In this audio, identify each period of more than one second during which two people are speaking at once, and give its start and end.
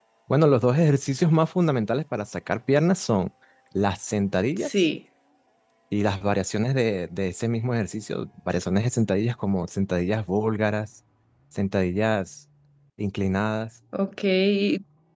none

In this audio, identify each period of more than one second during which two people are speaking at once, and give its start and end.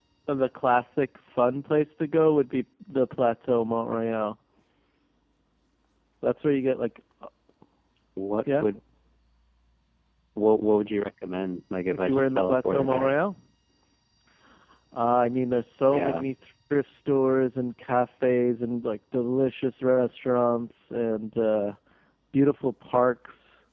11.9-13.2

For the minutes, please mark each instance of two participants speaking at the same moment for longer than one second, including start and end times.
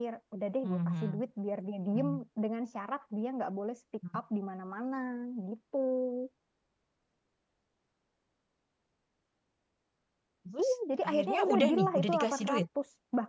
11.1-12.6

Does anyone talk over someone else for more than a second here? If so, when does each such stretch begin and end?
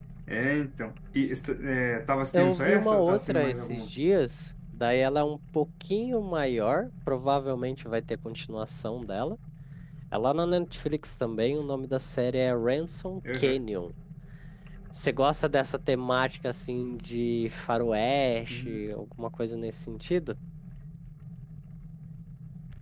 2.3-3.8

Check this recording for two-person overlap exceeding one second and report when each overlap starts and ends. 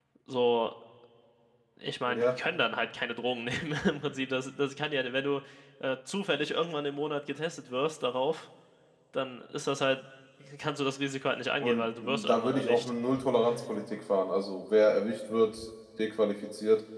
11.6-12.9

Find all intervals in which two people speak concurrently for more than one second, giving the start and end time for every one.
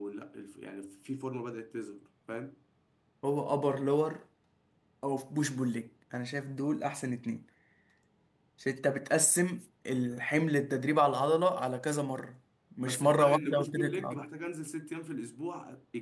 12.8-14.2

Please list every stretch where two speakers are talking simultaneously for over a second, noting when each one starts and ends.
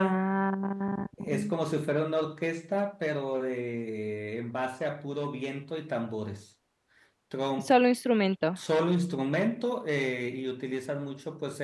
none

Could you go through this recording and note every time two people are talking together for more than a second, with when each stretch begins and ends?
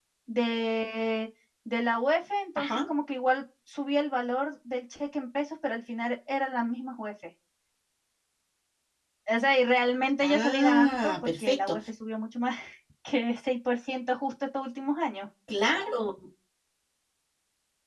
10.2-11.8

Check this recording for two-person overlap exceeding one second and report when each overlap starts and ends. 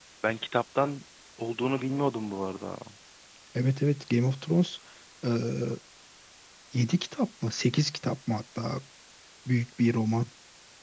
none

